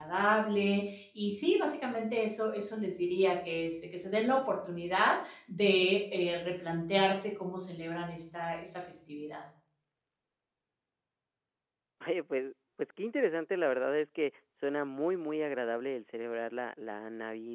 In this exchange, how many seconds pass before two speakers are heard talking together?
none

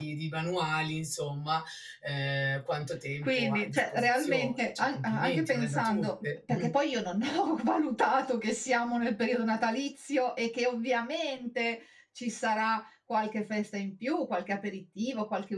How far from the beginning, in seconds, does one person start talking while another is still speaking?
3.2 s

